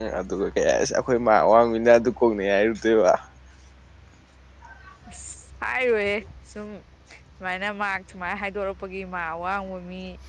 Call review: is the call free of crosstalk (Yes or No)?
Yes